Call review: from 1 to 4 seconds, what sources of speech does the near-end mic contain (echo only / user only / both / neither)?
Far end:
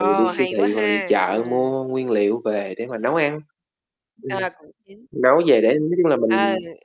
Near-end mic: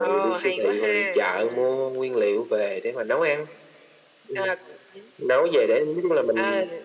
echo only